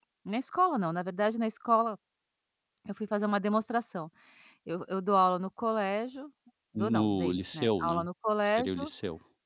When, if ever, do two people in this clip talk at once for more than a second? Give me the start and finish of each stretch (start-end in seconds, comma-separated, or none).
6.8-8.0